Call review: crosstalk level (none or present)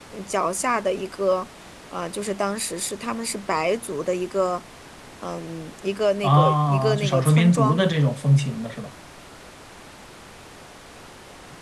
present